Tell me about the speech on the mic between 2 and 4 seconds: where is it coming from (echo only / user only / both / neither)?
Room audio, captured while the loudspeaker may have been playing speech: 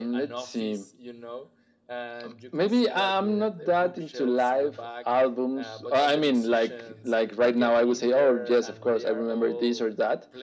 both